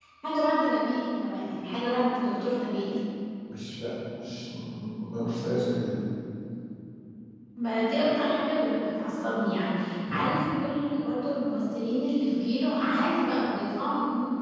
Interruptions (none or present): none